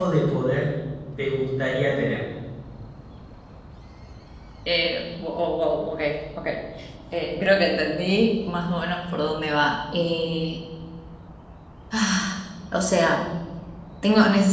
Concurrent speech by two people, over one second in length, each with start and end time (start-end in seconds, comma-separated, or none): none